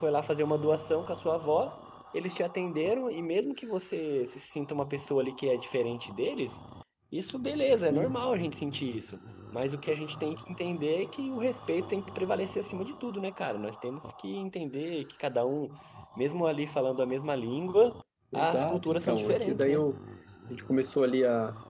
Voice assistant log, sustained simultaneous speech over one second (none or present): present